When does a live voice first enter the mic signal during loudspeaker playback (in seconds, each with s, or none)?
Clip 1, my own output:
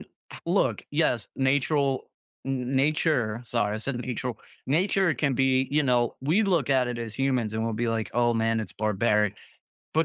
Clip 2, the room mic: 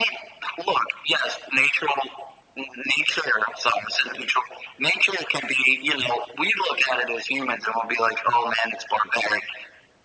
none